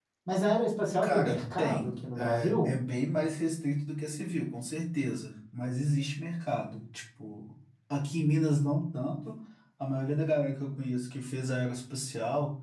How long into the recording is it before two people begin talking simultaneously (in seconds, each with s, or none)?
1.0 s